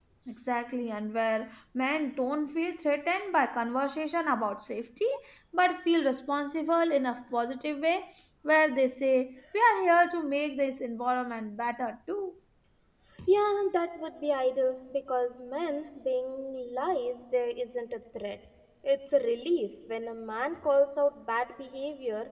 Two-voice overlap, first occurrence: none

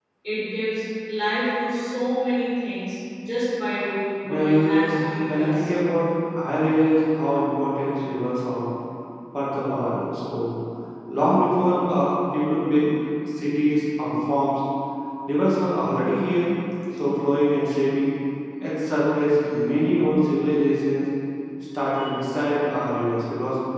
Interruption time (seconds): 4.2 s

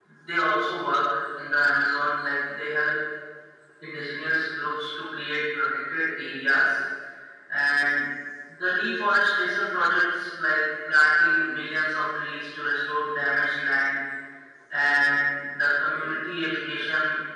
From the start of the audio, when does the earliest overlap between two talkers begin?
none

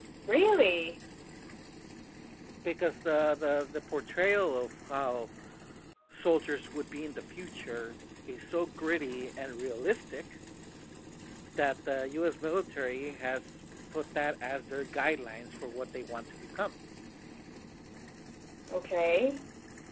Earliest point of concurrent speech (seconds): none

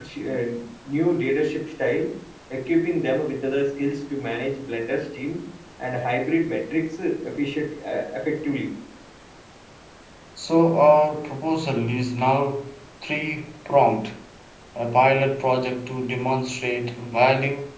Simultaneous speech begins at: none

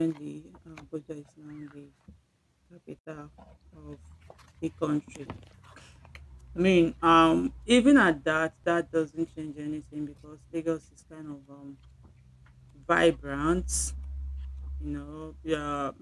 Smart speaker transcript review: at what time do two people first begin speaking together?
none

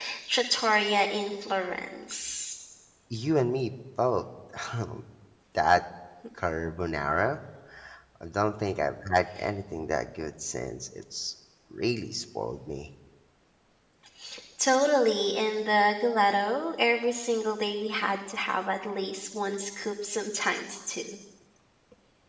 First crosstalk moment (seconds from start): none

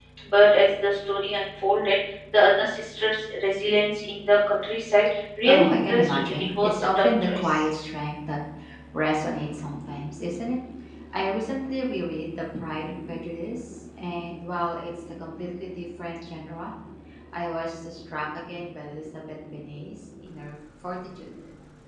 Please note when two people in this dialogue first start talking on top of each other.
5.4 s

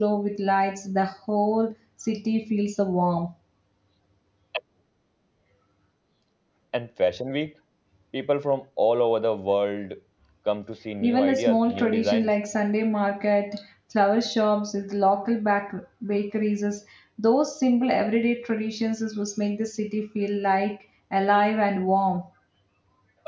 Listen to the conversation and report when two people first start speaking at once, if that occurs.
11.0 s

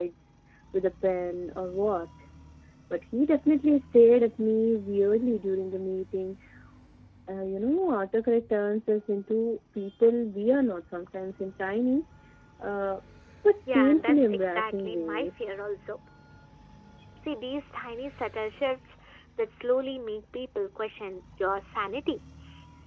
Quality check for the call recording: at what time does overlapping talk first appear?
13.7 s

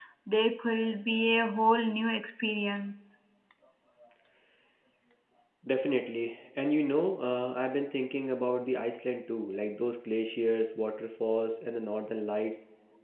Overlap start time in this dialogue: none

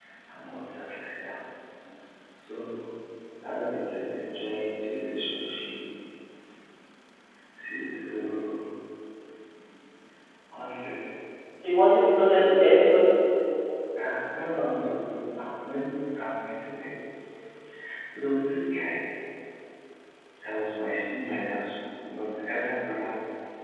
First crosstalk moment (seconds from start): none

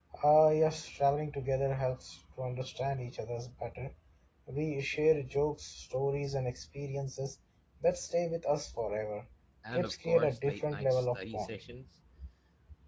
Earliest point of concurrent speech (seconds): 9.7 s

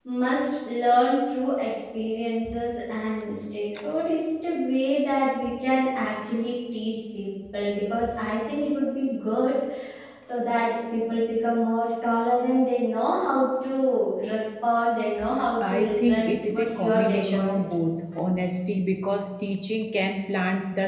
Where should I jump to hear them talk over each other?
15.6 s

